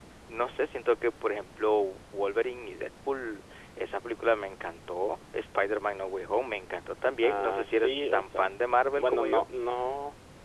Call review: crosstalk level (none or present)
present